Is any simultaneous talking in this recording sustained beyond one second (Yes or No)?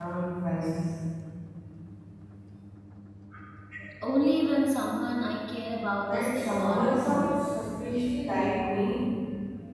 Yes